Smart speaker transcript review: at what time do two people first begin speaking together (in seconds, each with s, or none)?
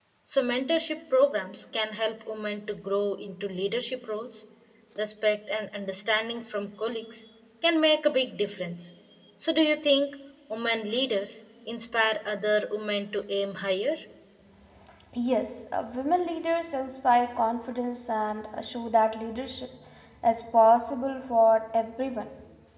none